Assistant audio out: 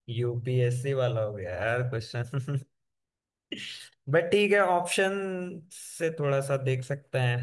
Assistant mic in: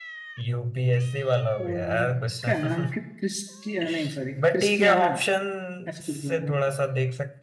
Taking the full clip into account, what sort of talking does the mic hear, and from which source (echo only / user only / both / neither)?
both